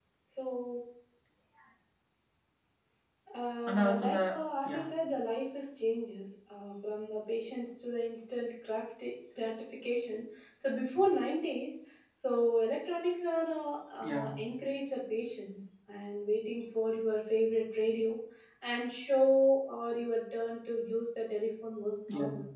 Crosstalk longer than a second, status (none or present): present